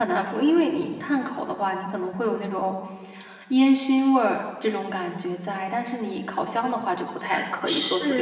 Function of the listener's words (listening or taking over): taking over